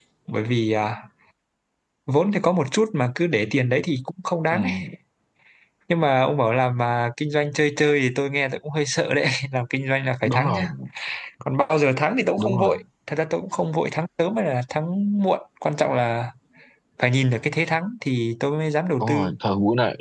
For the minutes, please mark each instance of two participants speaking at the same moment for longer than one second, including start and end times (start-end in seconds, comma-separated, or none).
none